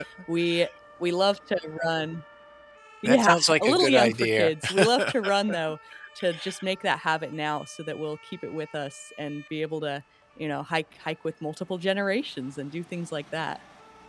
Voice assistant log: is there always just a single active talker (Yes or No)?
No